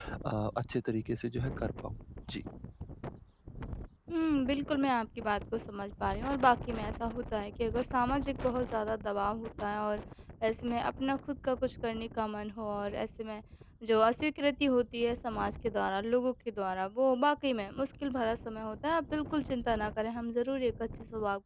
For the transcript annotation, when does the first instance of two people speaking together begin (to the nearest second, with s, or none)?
none